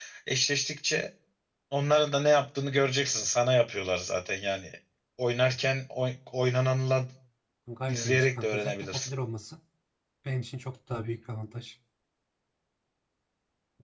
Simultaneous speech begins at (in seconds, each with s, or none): 7.9 s